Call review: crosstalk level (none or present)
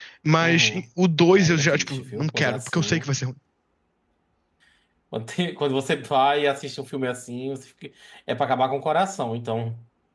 present